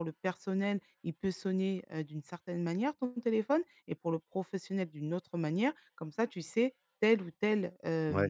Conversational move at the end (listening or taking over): listening